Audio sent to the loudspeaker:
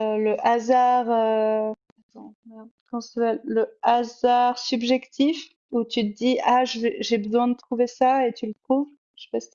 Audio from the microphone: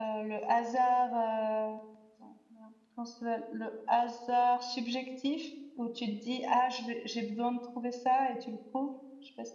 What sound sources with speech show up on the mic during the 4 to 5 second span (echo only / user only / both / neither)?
echo only